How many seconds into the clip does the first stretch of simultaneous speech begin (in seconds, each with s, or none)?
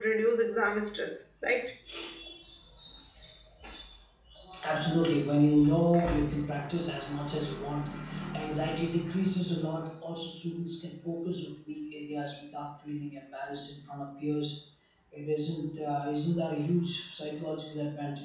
none